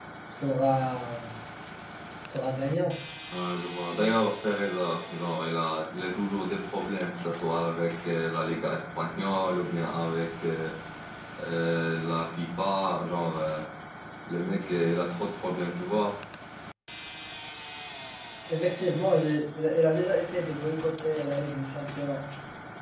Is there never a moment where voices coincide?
Yes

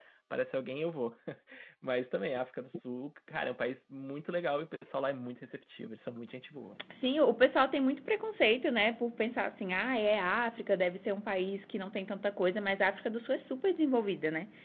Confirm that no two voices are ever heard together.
Yes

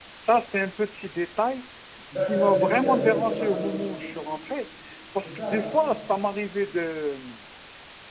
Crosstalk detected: Yes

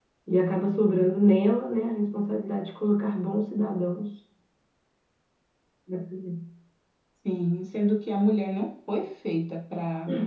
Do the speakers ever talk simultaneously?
No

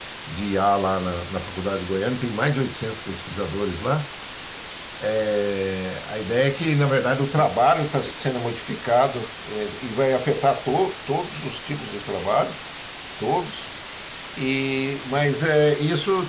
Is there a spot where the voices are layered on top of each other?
No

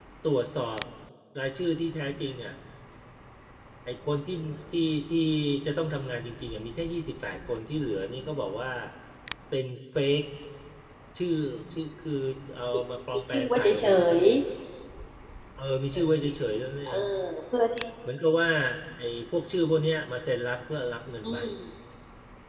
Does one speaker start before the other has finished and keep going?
Yes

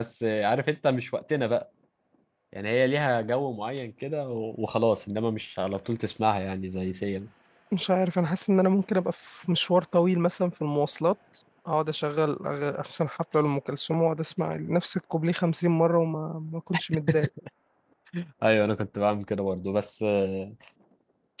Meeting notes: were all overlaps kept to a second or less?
Yes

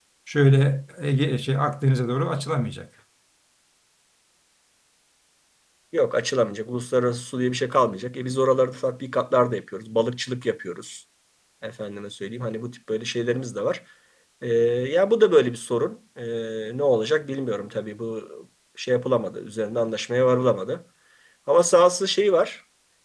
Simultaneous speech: No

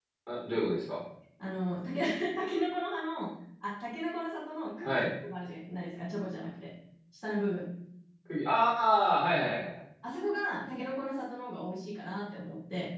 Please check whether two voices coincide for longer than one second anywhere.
No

